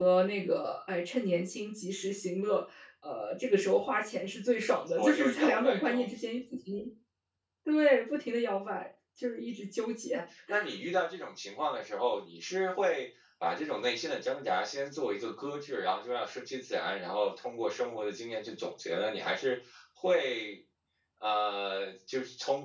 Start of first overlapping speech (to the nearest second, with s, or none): 5 s